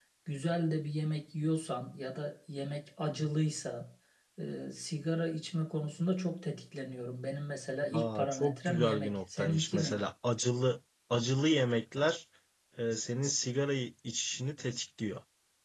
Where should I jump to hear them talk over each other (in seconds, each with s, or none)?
7.8 s